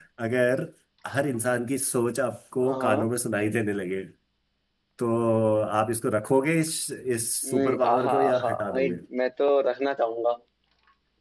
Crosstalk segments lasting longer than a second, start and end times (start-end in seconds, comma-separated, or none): 7.4-9.0